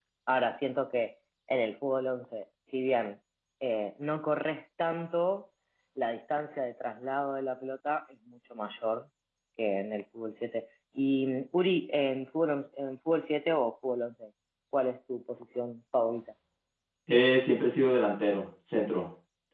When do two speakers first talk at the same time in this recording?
none

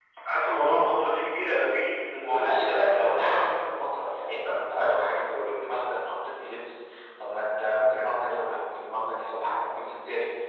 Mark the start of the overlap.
2.2 s

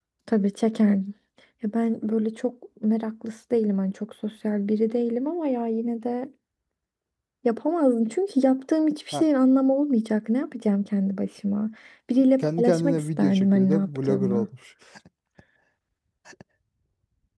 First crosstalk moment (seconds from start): 12.4 s

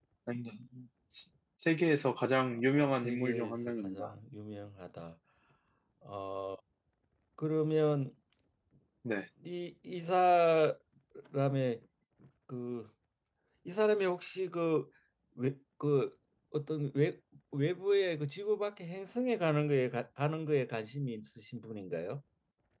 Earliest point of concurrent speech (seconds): 2.5 s

